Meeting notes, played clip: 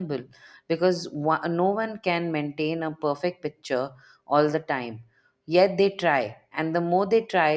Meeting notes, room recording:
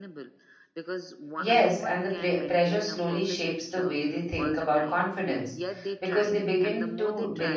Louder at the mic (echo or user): user